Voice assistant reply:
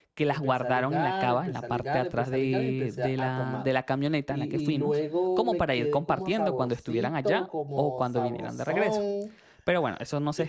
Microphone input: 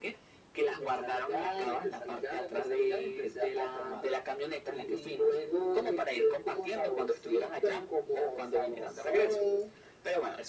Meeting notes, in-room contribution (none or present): none